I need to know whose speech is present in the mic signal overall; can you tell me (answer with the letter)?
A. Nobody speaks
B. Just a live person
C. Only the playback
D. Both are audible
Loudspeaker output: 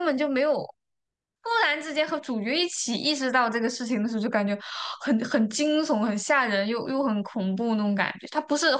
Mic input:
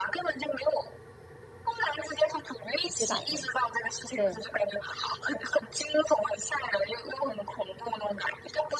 D